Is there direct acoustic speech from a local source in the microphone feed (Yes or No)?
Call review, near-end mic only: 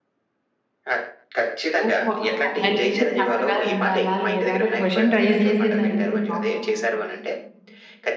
Yes